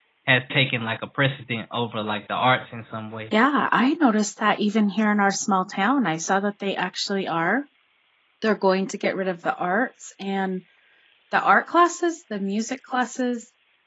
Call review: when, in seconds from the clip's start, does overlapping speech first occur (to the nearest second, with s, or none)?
none